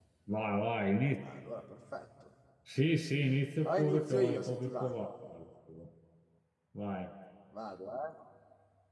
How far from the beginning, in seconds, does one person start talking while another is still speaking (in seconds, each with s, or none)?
3.6 s